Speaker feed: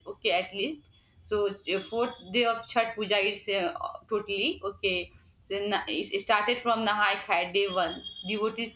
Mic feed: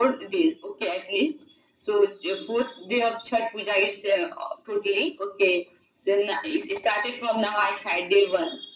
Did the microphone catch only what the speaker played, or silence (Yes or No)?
Yes